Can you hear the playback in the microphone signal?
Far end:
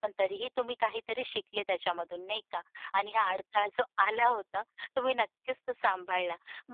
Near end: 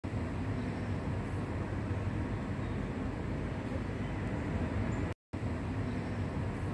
No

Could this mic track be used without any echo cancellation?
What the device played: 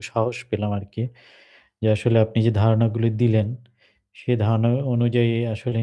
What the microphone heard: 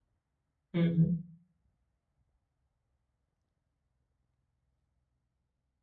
Yes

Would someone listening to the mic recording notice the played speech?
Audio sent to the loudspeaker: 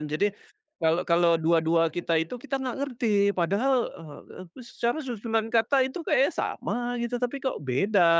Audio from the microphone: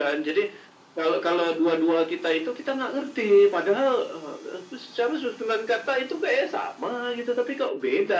Yes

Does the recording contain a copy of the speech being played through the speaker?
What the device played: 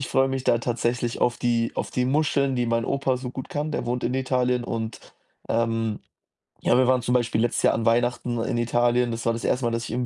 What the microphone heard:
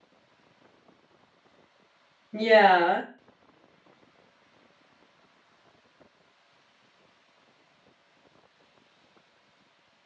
No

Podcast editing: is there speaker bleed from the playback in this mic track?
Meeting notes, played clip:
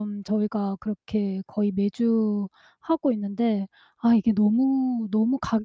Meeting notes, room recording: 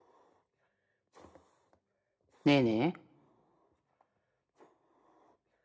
No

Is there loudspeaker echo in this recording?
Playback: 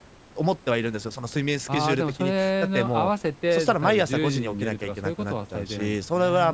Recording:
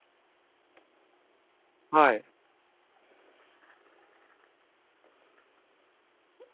No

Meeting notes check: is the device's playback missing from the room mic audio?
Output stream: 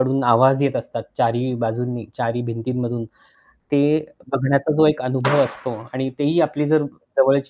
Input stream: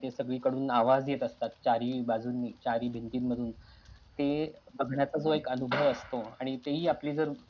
No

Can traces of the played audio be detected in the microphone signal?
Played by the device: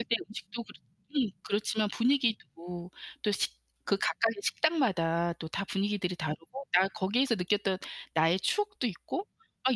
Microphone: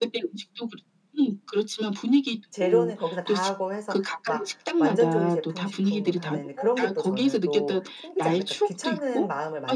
Yes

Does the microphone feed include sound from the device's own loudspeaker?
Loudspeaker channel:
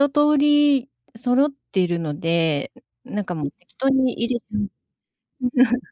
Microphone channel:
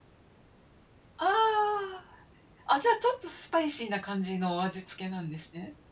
No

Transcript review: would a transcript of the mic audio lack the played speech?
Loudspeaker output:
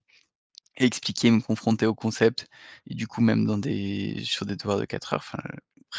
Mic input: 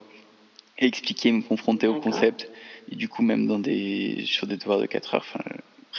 No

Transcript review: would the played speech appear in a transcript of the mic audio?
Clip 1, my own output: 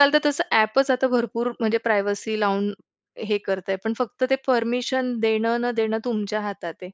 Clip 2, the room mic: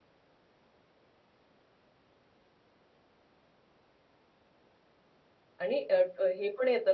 No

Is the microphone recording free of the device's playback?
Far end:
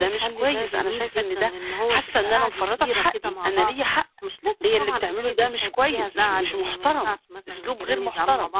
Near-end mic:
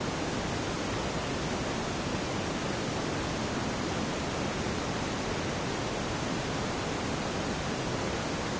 Yes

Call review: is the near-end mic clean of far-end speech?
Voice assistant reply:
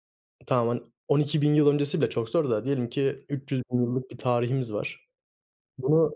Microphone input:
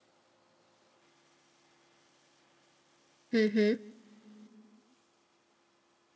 Yes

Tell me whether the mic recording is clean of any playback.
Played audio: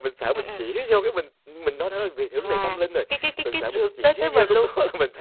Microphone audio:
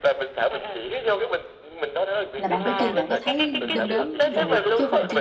No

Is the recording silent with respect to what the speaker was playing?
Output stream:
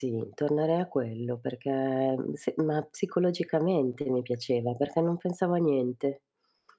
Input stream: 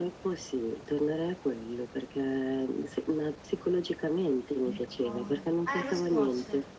No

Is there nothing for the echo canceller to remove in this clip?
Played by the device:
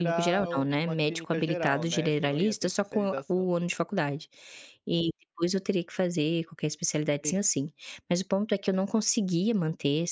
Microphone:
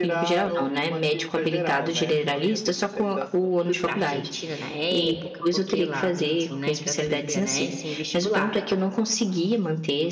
No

